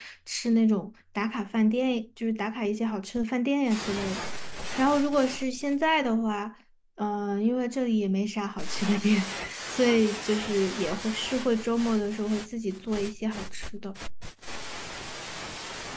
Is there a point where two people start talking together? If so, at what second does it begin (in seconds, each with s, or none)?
none